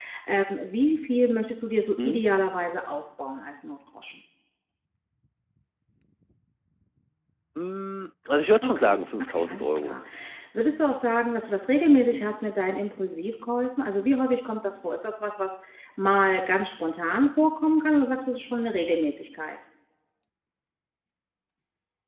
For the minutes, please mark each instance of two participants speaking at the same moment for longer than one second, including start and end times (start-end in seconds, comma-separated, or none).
8.6-10.0